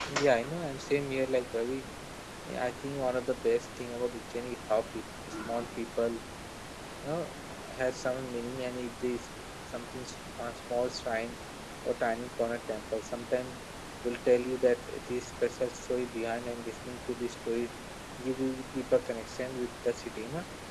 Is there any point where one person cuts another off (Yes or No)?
No